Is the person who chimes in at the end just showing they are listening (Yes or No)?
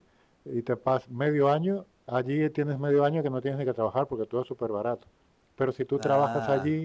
Yes